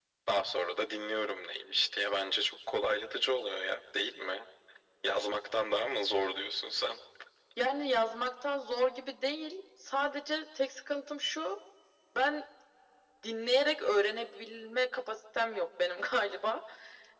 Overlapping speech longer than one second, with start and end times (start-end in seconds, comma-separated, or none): none